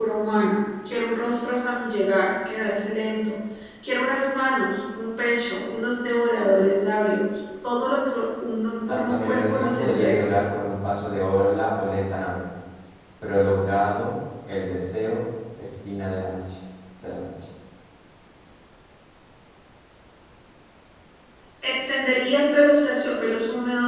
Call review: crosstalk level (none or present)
present